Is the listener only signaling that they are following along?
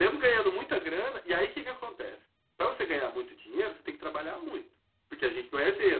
Yes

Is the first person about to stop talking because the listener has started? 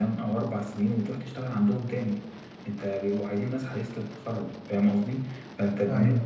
No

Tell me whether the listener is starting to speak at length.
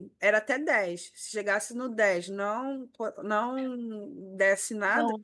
No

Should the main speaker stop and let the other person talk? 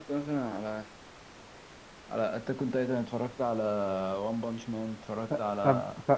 Yes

